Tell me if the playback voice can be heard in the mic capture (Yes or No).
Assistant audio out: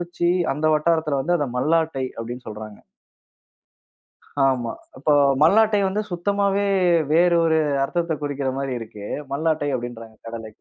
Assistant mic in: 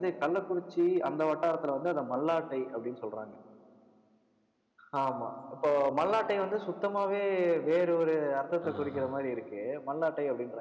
Yes